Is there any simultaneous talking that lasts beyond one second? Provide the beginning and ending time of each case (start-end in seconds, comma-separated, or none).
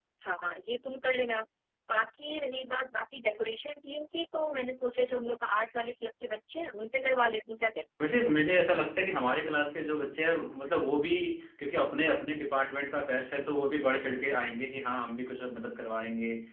none